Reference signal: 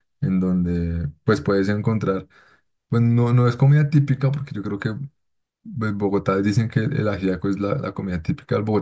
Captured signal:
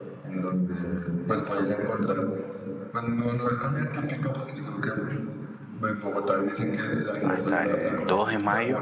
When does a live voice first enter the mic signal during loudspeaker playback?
7.2 s

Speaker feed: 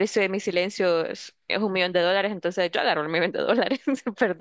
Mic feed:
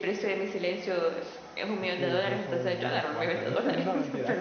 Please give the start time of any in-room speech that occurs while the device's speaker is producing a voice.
1.8 s

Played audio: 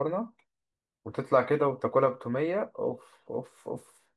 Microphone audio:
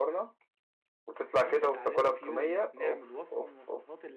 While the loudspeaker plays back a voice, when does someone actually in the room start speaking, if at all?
1.4 s

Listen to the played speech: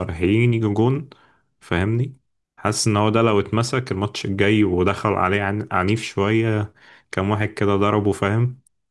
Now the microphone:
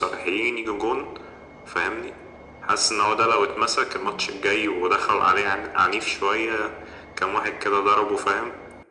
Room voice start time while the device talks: none

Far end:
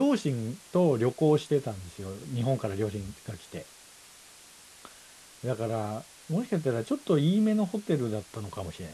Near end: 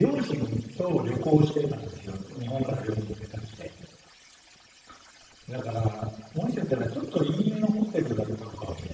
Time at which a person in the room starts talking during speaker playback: none

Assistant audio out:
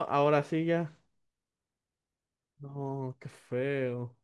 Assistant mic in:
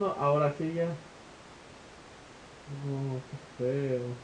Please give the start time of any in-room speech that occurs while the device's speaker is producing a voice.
none

